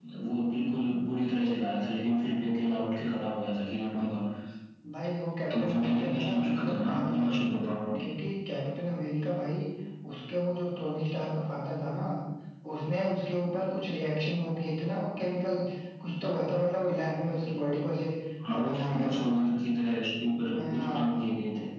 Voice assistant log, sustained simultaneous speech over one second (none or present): present